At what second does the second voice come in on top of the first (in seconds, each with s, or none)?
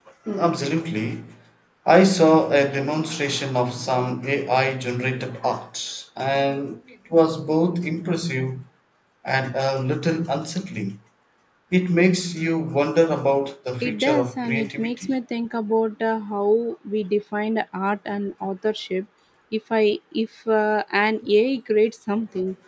13.8 s